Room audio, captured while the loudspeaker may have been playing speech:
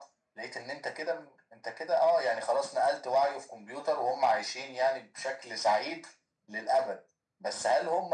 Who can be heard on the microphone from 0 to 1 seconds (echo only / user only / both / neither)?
echo only